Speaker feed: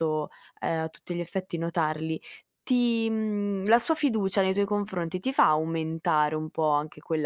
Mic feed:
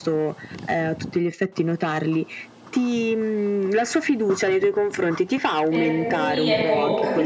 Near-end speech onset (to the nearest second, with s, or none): 6 s